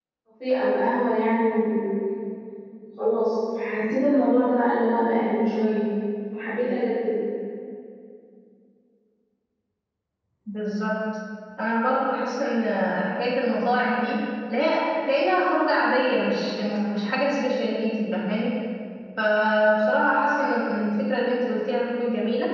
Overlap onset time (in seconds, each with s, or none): none